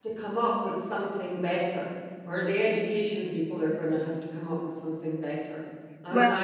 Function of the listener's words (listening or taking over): listening